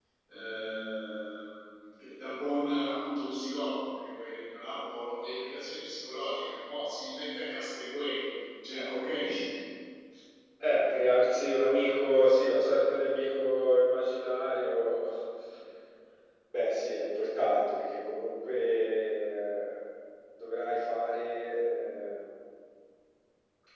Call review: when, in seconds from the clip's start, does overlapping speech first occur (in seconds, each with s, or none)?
none